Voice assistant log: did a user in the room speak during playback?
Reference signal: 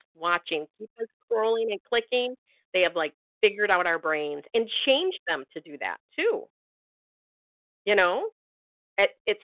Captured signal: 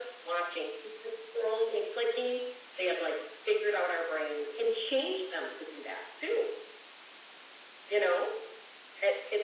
No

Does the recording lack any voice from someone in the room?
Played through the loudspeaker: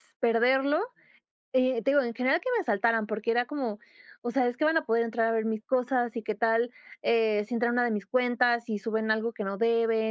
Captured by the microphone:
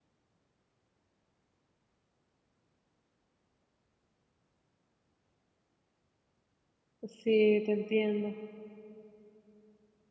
No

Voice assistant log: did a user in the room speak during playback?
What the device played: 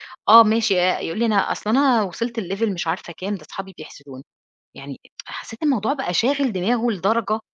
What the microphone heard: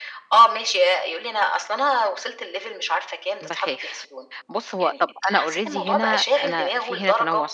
Yes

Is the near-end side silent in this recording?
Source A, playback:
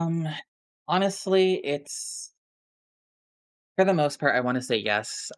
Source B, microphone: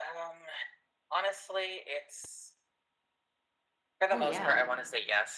No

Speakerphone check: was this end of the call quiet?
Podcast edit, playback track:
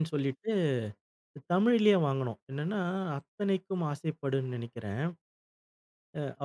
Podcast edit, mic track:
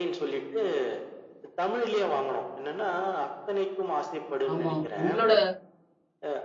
No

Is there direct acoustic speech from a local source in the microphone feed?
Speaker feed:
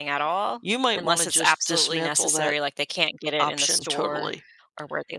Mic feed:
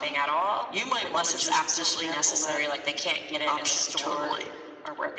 No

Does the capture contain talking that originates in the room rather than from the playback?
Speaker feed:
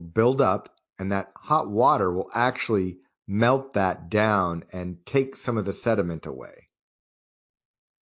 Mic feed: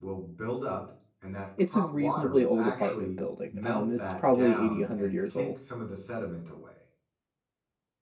Yes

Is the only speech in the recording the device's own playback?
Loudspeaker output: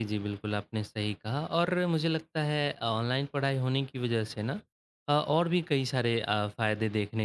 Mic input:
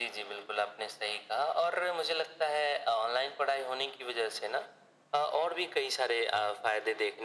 Yes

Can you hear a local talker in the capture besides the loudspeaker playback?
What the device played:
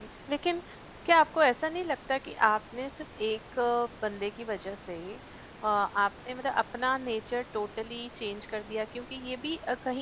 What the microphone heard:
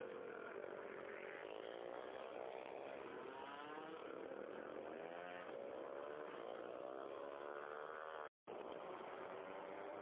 No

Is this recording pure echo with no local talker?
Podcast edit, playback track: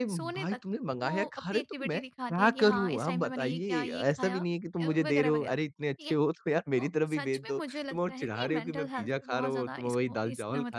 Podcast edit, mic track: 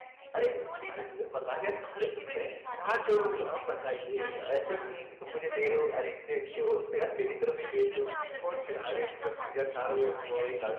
No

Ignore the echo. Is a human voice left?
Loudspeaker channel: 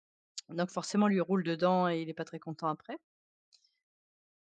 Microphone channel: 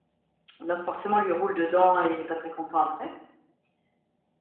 No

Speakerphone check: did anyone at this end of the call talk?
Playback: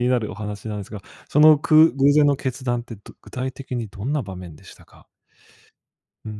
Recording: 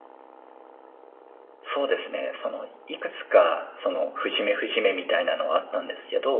Yes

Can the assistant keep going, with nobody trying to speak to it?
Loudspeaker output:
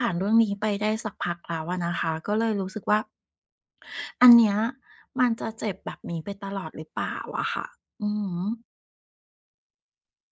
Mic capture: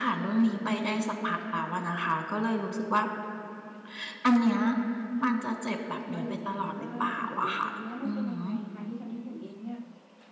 No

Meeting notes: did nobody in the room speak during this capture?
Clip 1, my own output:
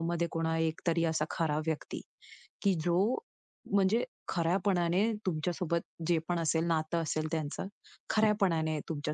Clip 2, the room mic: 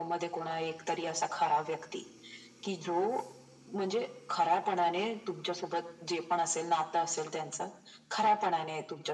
Yes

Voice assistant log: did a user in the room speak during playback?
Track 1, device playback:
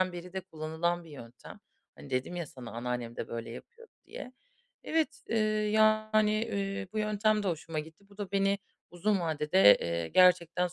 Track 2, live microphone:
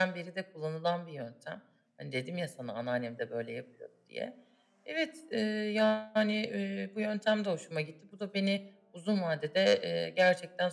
No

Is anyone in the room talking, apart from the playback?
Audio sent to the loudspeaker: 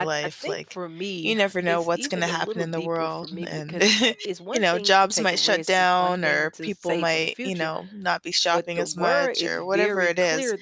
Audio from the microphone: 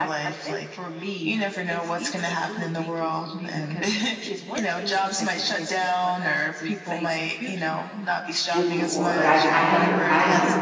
Yes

